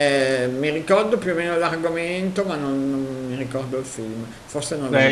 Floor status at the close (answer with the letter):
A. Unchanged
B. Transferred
B